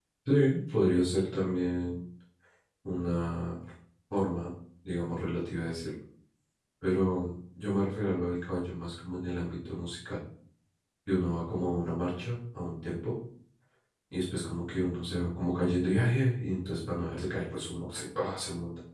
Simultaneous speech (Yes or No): No